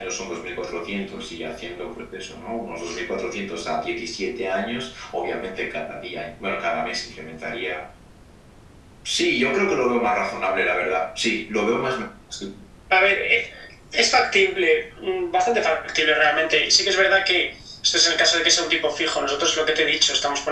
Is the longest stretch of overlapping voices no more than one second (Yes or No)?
Yes